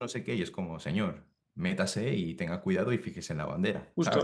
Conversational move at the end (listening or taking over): taking over